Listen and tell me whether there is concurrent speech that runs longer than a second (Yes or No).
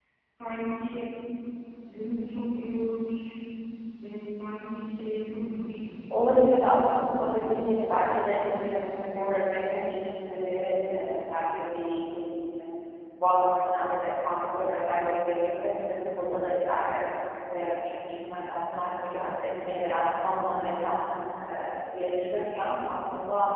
Yes